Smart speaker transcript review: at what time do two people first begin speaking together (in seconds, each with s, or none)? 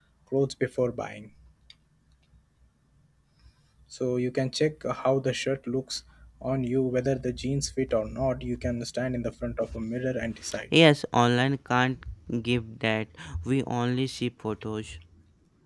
none